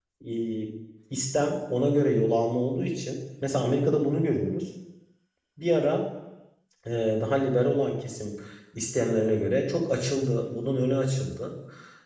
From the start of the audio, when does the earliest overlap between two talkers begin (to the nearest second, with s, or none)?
none